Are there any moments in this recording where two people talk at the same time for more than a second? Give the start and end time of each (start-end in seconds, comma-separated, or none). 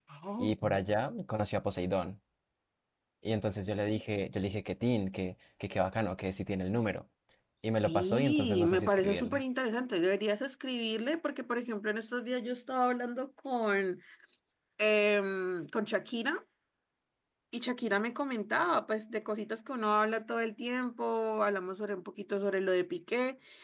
7.8-9.4